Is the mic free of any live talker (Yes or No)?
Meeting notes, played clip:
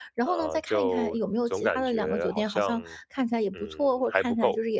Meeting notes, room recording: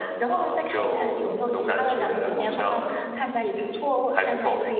No